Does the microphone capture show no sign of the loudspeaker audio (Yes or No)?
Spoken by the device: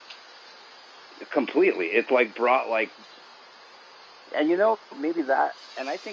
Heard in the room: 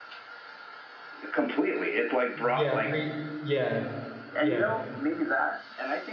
No